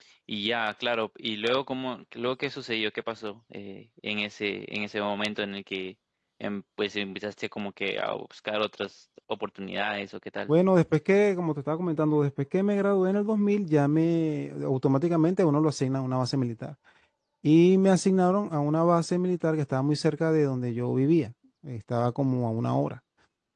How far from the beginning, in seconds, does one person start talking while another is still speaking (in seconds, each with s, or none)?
none